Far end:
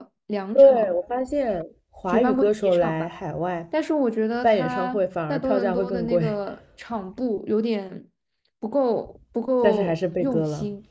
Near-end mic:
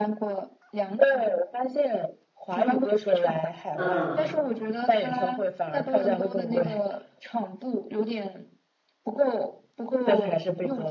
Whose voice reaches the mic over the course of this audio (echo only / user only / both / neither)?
both